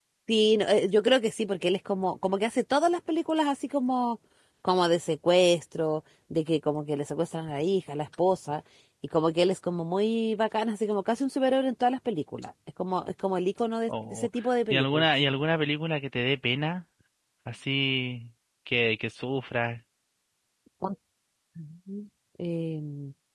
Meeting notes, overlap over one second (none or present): none